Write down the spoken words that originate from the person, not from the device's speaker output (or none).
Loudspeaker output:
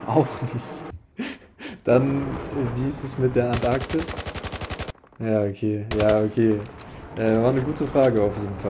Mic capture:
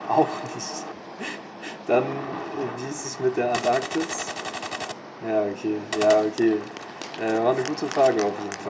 none